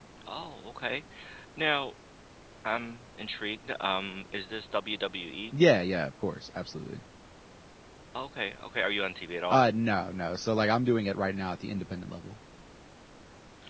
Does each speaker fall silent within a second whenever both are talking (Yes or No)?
Yes